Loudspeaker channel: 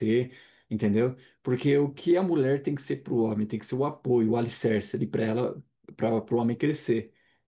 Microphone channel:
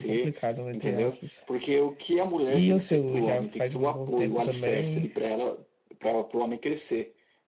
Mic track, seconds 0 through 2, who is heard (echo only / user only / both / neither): both